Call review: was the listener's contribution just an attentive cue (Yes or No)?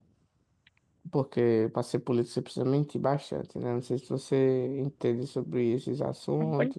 No